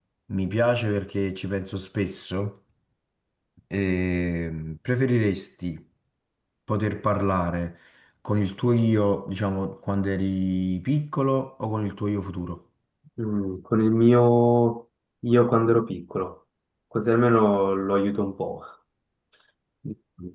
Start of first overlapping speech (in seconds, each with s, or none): none